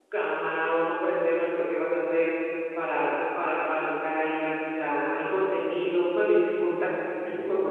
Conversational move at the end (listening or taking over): listening